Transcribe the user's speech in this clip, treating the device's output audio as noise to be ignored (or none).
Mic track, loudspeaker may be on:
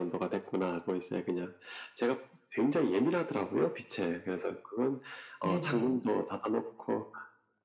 네네.